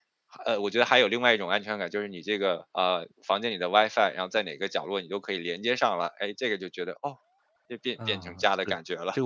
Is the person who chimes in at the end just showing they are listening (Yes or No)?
No